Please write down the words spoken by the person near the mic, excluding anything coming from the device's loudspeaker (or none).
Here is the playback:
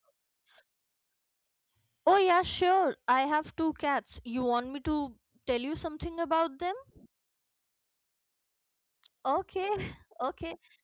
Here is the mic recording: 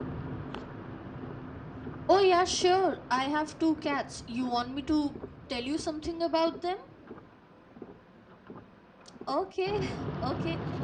none